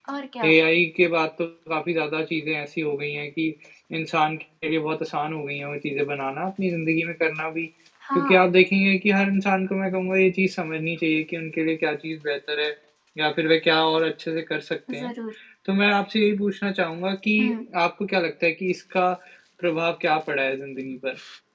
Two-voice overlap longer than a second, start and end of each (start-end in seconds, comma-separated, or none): none